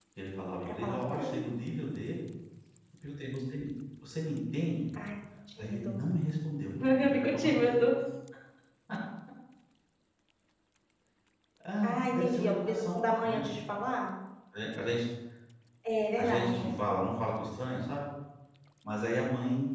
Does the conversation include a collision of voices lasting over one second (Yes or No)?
Yes